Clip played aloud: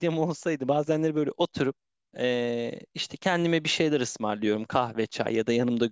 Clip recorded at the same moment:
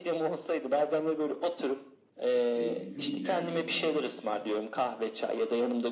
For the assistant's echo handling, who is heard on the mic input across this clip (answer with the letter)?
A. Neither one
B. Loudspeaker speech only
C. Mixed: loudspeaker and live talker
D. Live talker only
C